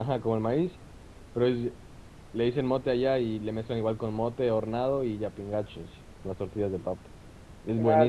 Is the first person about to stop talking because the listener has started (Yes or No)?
Yes